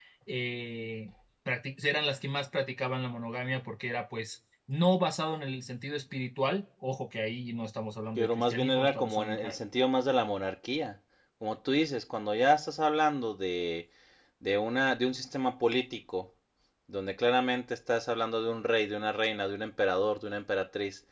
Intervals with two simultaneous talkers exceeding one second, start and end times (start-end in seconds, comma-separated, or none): 8.2-9.6